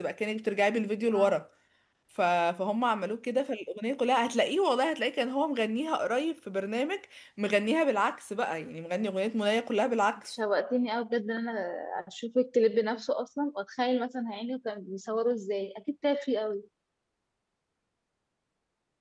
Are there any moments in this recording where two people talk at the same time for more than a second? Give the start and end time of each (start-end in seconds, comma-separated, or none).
none